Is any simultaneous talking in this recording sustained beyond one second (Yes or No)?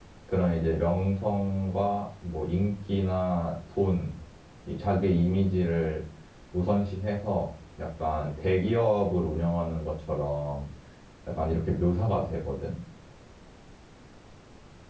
No